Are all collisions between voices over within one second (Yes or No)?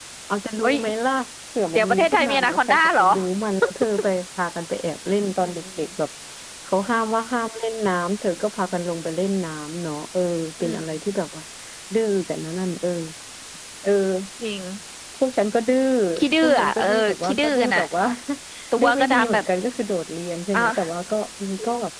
No